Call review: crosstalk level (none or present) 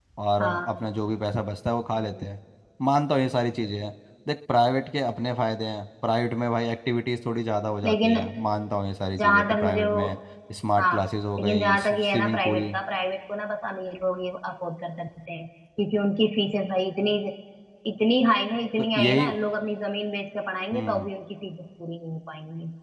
present